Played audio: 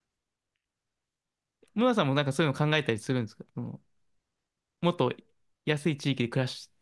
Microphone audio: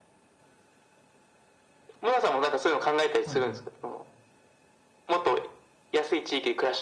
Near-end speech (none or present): present